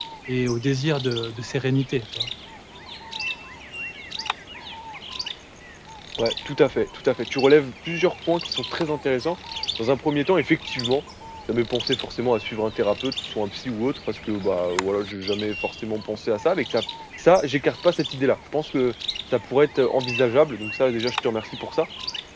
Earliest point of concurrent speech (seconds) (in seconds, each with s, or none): none